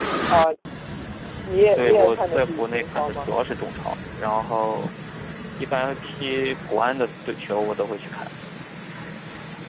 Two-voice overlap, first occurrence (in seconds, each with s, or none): 1.8 s